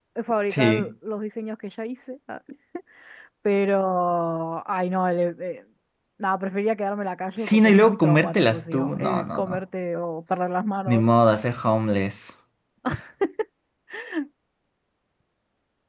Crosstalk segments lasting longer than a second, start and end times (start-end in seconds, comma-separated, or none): 7.4-9.6